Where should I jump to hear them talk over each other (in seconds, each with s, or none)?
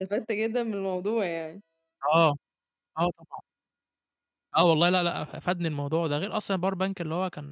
none